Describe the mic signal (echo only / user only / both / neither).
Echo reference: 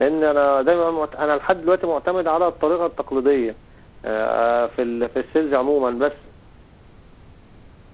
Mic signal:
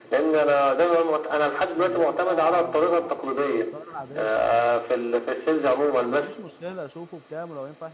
both